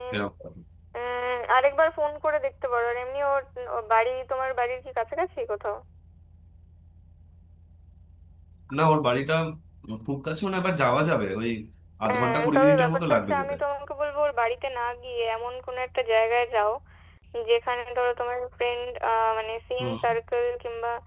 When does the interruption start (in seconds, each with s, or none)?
12.1 s